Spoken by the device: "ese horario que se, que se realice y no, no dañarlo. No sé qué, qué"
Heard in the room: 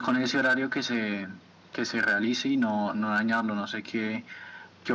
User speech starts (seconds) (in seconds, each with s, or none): none